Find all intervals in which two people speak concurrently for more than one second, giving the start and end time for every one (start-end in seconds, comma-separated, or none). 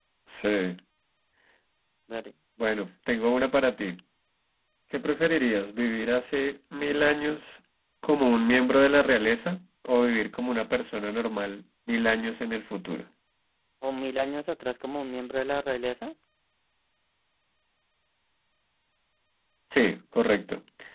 none